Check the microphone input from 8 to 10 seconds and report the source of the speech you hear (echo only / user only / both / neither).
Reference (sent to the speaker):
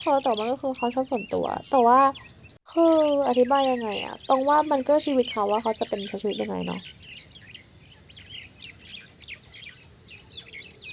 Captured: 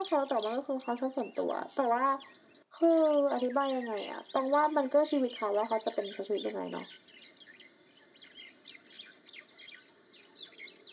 neither